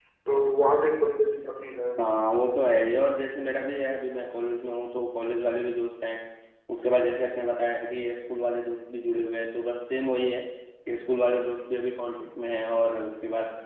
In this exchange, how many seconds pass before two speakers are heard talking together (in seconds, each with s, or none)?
none